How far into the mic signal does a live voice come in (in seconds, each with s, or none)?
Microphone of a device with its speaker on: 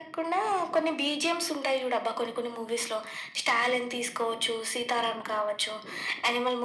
none